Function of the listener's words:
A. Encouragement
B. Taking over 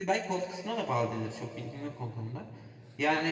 B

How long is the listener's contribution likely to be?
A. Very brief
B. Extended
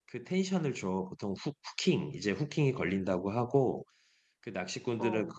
A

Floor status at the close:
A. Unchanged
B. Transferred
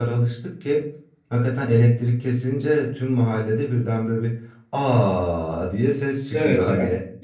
B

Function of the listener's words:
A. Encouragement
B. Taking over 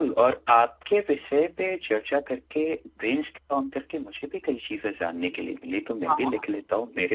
A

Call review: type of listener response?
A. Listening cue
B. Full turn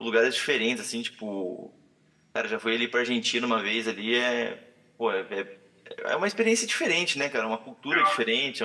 A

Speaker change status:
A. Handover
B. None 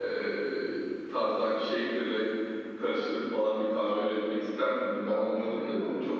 A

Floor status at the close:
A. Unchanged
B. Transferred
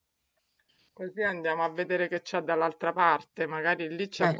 A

